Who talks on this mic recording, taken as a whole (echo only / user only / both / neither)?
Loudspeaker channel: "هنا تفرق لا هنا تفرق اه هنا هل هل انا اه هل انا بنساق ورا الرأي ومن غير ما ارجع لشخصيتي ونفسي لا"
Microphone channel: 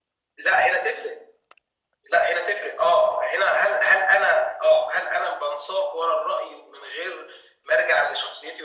echo only